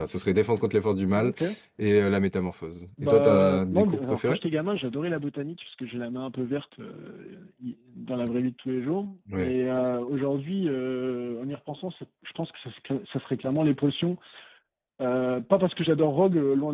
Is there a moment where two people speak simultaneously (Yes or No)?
Yes